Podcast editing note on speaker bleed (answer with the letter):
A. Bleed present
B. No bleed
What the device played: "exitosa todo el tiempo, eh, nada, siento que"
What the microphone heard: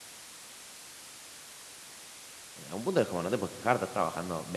B